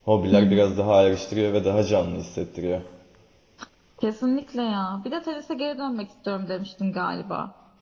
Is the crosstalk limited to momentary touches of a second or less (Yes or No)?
Yes